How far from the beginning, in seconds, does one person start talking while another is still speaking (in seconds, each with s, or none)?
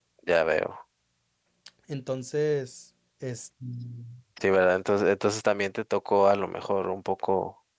none